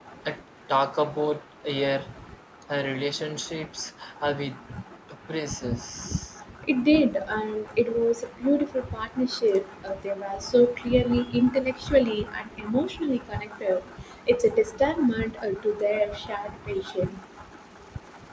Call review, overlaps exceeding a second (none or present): none